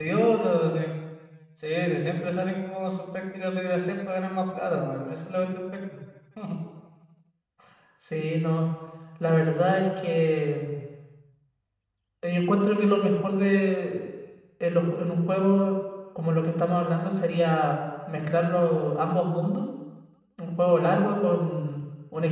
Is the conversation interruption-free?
Yes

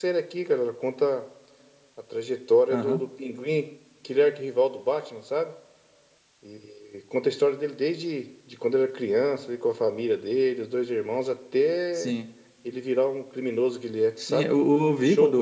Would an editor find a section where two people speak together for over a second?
No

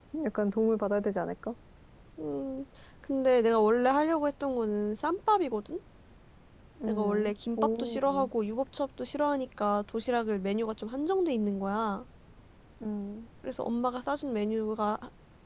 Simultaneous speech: Yes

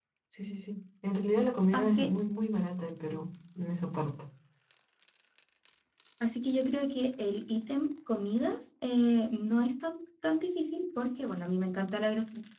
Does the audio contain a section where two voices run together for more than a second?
No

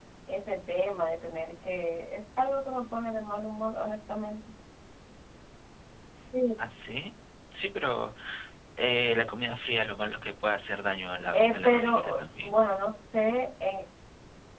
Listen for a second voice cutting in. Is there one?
Yes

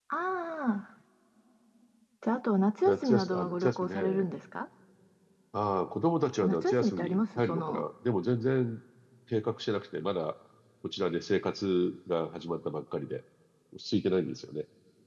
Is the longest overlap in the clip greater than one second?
Yes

